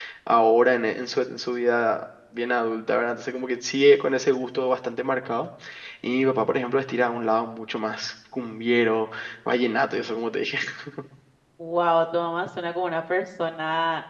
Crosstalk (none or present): none